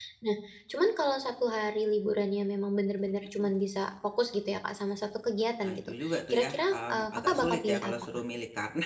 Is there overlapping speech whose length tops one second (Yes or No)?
Yes